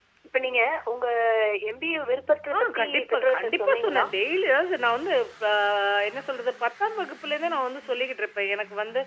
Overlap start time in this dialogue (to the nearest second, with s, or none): 3 s